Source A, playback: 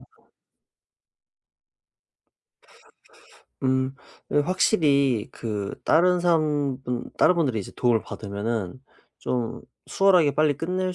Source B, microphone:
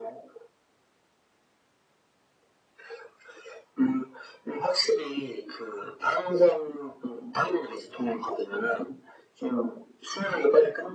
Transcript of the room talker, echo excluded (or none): none